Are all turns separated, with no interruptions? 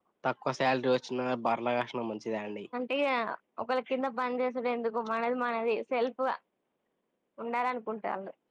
Yes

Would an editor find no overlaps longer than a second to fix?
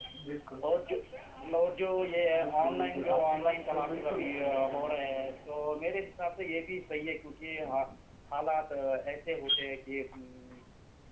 No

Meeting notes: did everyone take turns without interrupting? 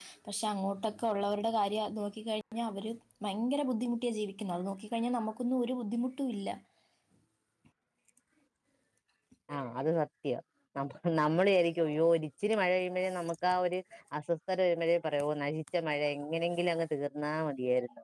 Yes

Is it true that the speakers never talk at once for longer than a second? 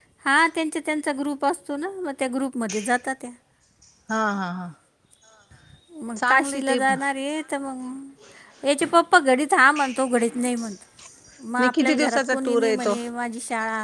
No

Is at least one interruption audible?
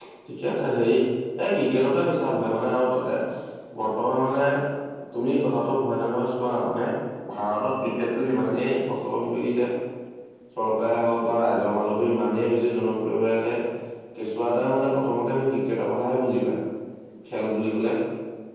No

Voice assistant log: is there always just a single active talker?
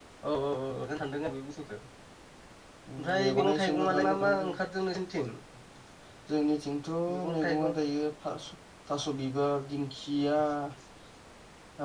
No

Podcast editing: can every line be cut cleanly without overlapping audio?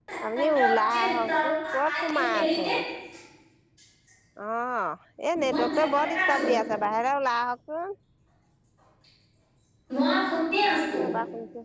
No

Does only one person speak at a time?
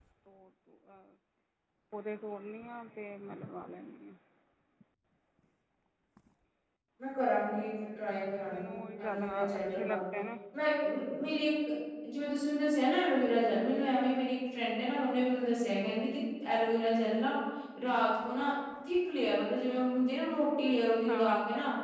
No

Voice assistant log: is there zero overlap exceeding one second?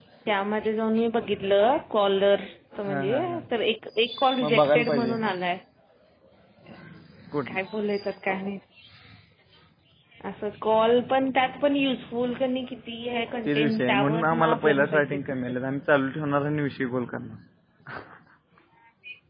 No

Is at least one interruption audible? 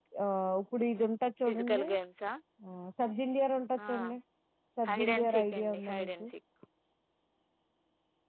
Yes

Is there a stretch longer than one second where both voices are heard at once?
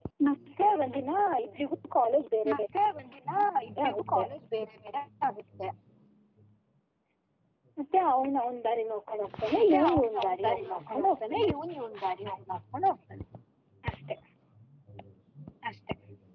Yes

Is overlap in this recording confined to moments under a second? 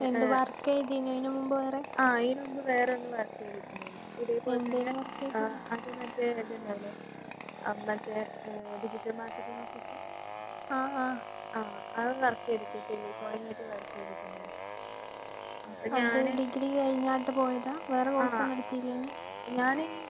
Yes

